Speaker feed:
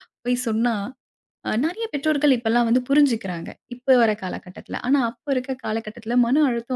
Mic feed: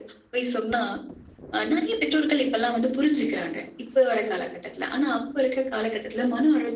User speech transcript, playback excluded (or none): none